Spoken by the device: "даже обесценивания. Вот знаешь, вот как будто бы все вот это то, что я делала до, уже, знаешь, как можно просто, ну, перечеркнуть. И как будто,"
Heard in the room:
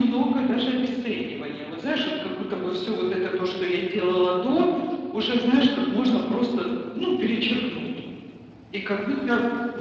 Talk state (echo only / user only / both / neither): echo only